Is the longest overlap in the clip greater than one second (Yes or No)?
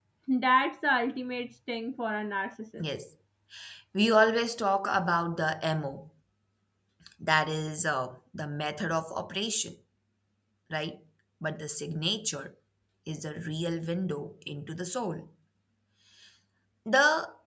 No